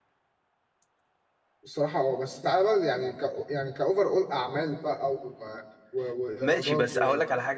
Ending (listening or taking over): taking over